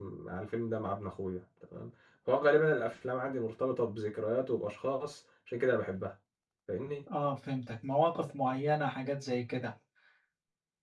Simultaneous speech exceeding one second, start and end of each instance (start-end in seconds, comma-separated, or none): none